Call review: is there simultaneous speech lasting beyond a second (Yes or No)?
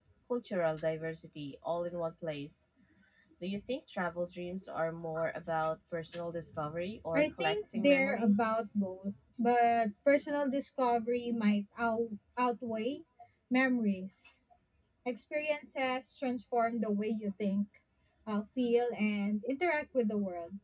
Yes